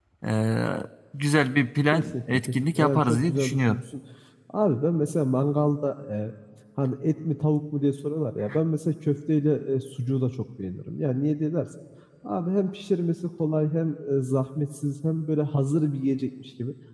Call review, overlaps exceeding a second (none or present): present